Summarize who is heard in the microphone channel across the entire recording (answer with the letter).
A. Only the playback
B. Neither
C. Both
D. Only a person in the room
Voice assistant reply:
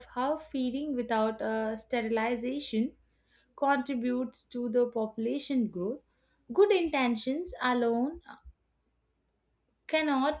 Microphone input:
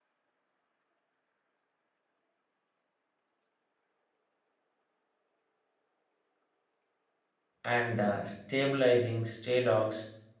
D